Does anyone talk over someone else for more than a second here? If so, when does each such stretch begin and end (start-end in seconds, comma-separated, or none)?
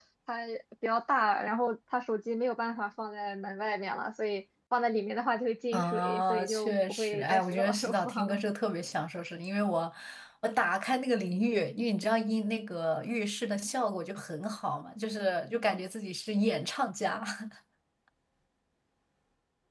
5.7-8.4